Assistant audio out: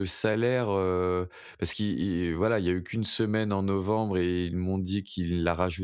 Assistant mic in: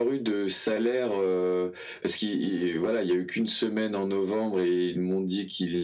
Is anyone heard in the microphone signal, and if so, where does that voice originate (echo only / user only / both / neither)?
echo only